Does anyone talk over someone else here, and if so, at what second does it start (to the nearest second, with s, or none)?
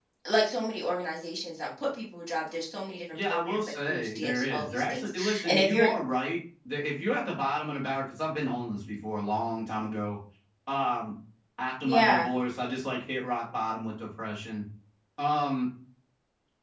3 s